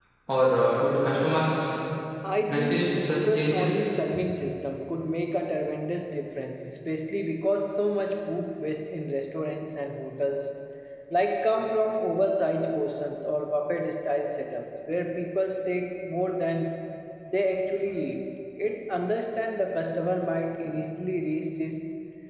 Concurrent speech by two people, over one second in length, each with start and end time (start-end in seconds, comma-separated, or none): 2.5-3.8